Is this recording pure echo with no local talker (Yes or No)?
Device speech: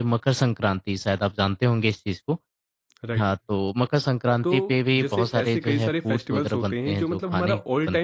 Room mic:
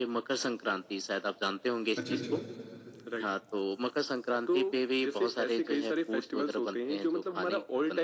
No